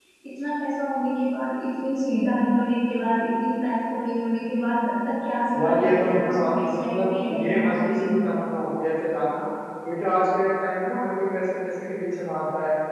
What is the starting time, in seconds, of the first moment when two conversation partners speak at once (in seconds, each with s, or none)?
5.5 s